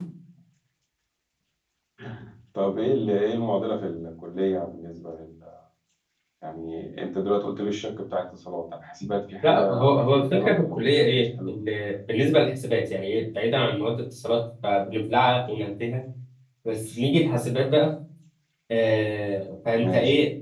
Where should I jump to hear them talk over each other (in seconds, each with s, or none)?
9.4 s